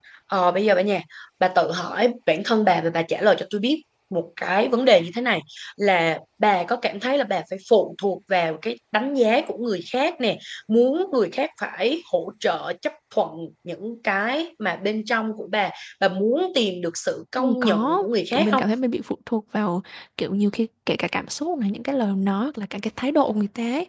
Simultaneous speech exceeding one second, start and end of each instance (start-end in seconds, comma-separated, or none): 17.4-18.6